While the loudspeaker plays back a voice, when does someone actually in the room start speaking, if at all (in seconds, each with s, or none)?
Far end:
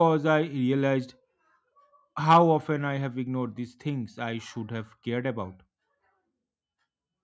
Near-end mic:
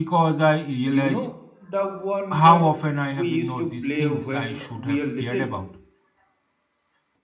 0.9 s